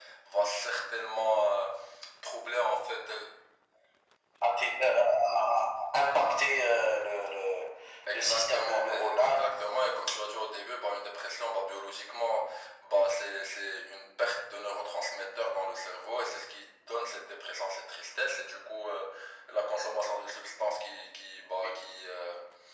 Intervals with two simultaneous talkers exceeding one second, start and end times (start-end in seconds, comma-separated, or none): 8.1-9.6